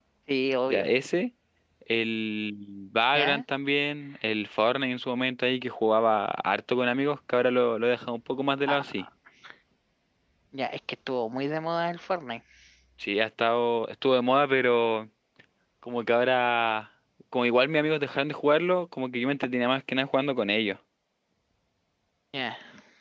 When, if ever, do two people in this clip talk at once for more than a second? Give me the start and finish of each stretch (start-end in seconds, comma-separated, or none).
none